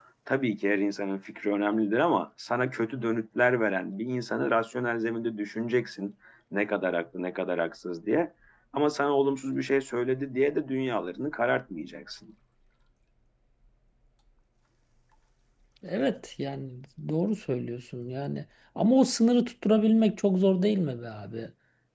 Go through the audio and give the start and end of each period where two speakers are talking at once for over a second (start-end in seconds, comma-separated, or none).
none